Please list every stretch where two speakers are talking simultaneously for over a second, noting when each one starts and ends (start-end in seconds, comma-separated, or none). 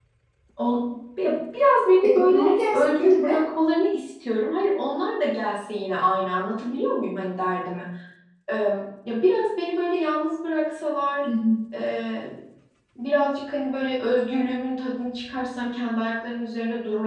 2.0-3.4